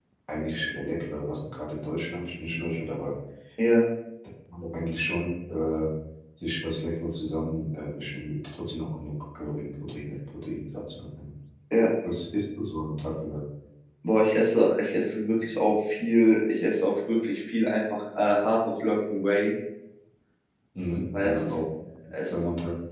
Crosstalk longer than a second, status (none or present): none